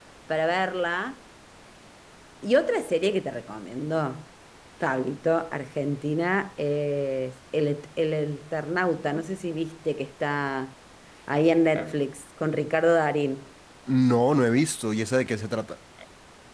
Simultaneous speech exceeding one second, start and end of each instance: none

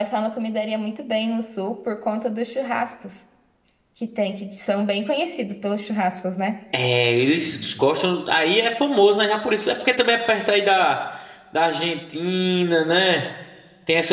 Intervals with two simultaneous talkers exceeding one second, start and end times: none

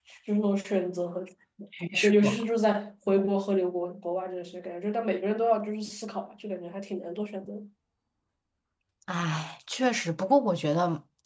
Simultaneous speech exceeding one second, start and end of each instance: none

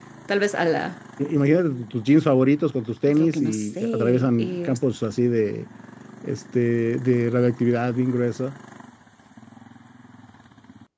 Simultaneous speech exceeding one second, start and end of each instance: 3.1-4.7

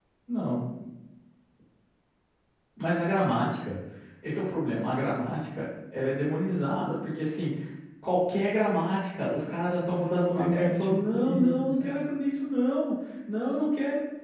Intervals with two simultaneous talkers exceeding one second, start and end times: 9.8-11.9

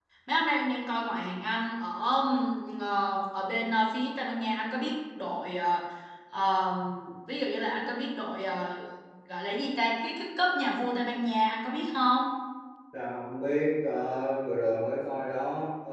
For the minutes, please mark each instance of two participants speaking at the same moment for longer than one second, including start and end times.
none

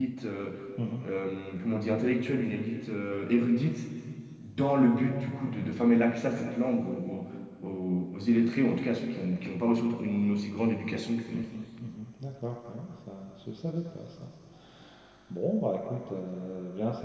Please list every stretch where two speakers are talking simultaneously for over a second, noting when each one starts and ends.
none

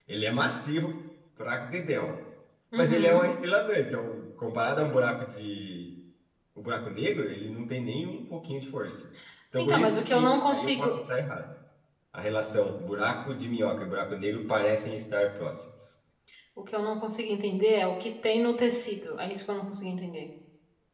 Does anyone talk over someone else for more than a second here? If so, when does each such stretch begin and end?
9.6-11.0

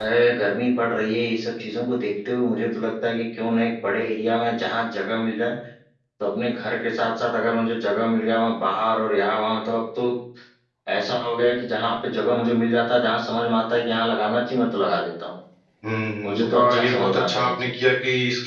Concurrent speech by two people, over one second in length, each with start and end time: 16.2-17.9

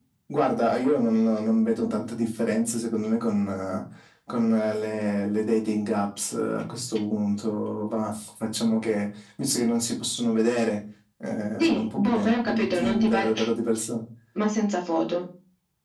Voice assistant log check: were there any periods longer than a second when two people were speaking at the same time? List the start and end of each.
11.7-13.3

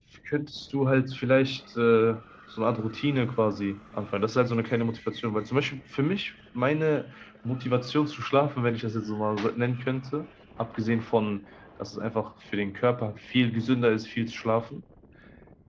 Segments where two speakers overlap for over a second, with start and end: none

